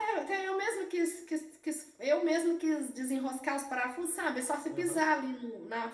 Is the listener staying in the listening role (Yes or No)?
Yes